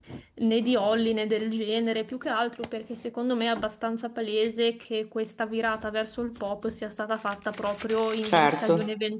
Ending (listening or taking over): listening